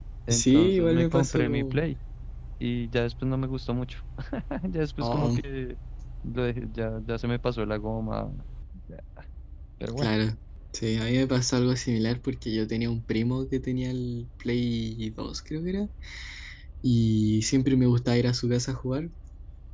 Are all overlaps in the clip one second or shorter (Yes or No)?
No